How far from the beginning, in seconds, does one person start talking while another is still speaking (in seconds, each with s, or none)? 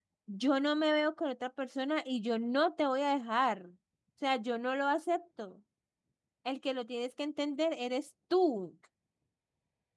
none